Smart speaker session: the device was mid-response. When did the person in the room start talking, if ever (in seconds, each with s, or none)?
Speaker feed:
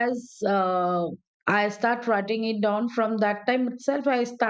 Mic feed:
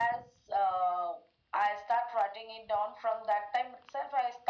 none